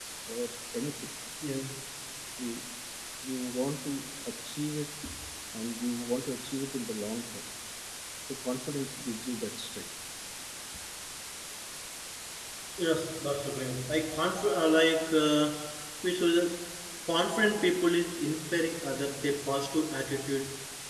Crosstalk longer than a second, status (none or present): none